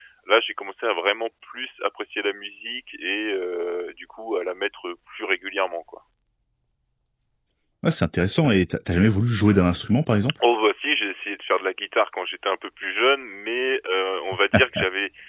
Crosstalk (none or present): none